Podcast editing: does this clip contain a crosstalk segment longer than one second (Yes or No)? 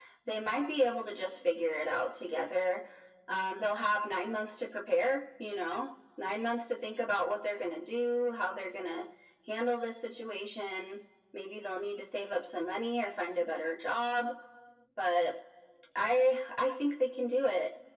No